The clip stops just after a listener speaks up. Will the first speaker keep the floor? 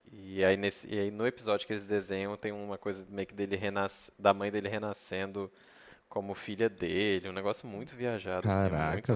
No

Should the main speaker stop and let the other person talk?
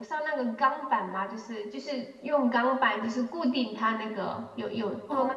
Yes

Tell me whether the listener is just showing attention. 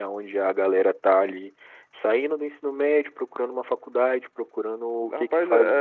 No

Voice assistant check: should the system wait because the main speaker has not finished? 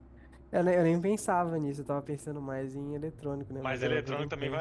No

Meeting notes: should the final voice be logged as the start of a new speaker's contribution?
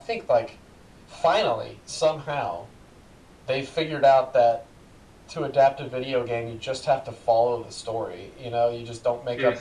No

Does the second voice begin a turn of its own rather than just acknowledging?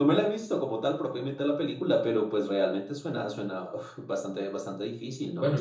Yes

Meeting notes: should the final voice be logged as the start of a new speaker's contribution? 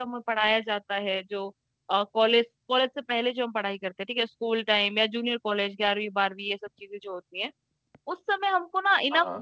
No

